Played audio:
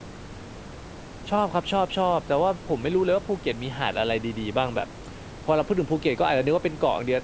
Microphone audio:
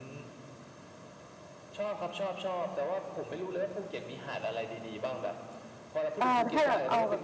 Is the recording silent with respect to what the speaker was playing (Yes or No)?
No